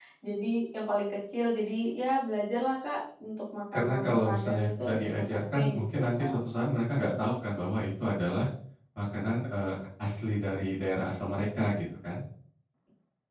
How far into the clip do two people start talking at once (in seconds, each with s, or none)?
3.7 s